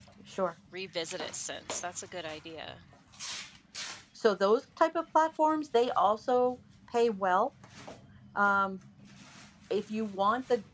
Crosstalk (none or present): none